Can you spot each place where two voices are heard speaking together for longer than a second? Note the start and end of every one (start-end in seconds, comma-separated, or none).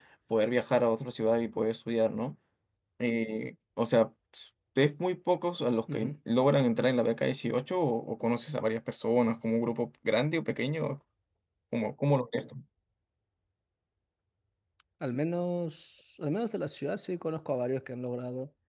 none